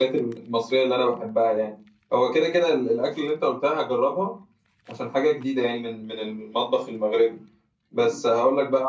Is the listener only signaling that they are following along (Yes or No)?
Yes